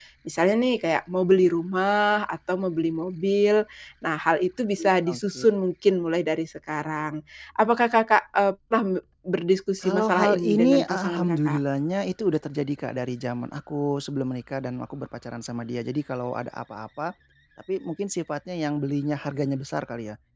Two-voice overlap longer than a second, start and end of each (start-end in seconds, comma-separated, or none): 9.8-11.6